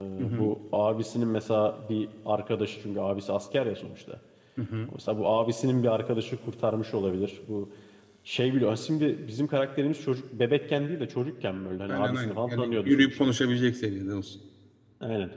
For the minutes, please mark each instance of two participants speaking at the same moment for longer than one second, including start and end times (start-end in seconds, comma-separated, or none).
11.9-13.3